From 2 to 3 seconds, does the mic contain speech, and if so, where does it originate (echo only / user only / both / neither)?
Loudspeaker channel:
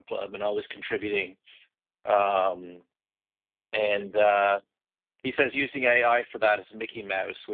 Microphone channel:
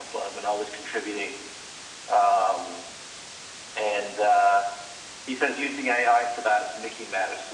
echo only